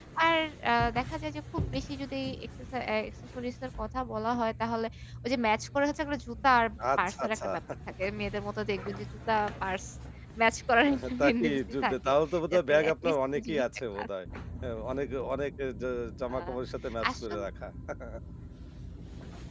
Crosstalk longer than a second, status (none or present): present